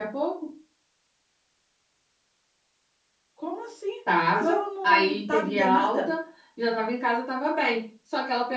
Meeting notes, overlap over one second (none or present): present